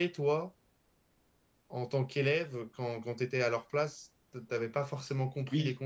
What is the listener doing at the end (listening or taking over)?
listening